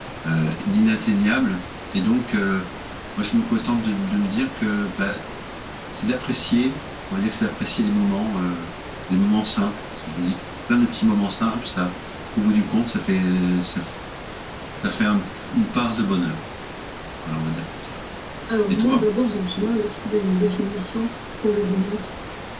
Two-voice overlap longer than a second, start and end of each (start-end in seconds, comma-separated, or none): none